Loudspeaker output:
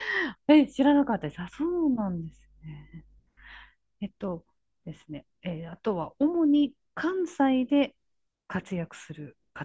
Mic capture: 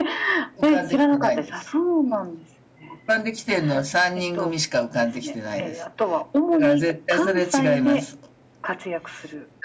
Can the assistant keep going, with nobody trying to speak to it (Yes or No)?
No